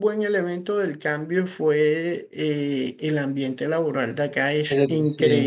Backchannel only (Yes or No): Yes